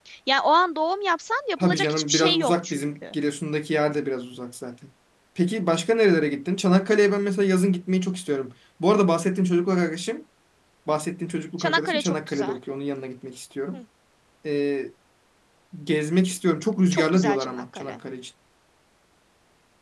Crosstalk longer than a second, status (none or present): present